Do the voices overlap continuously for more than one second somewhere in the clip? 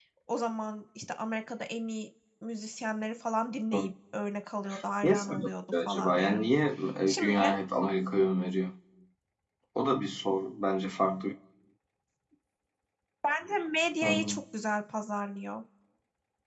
Yes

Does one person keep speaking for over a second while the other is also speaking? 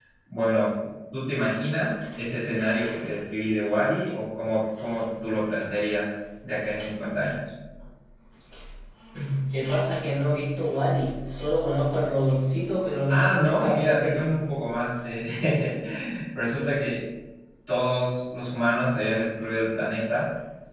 Yes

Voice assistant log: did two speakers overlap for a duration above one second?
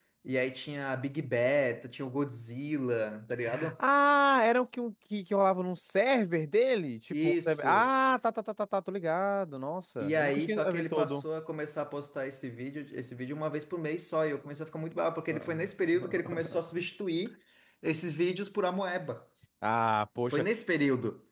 Yes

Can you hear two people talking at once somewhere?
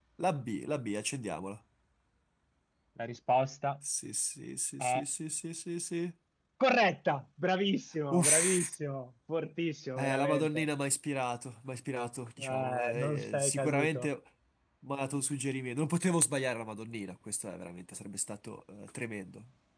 Yes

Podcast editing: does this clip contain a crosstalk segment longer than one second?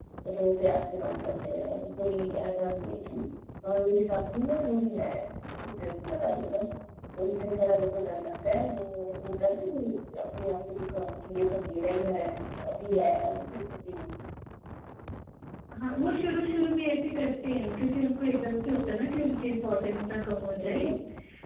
No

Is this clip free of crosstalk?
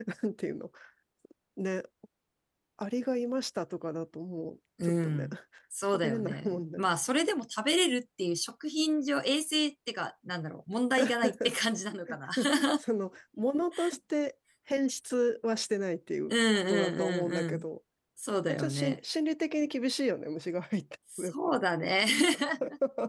No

